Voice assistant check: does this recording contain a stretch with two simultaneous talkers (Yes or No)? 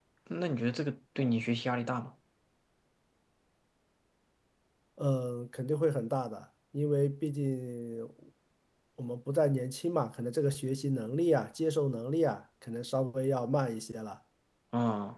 No